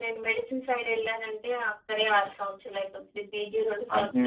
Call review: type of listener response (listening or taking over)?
taking over